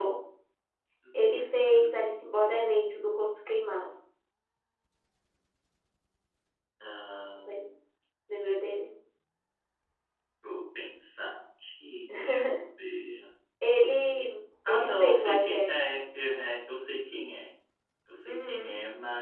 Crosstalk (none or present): present